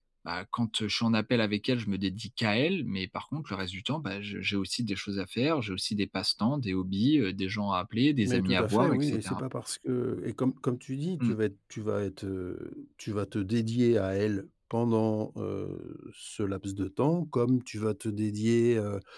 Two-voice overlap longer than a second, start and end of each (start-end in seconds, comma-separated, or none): 8.2-9.4